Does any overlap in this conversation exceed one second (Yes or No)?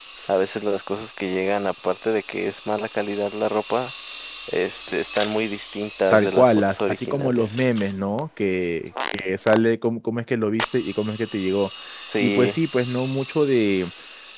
Yes